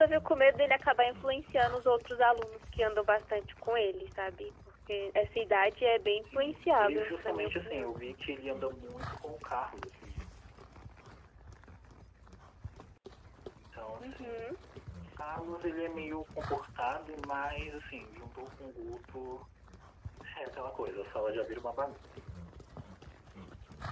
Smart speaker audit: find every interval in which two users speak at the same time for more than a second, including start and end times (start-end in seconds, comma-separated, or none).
6.3-7.9